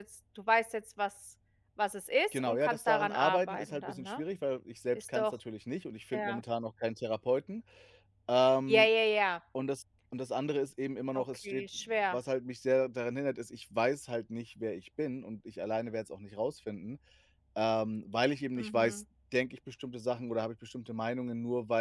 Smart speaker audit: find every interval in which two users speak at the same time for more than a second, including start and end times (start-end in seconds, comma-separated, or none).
2.3-4.2